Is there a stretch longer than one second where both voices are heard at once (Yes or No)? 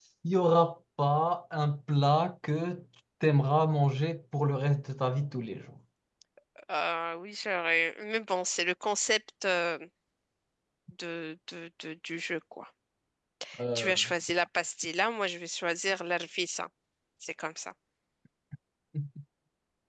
No